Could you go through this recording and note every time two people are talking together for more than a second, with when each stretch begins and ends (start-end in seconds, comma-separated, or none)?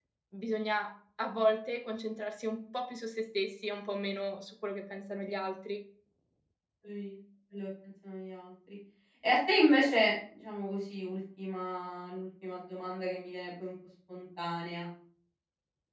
none